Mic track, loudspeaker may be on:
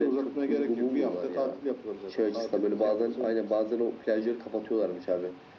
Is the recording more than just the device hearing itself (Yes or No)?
No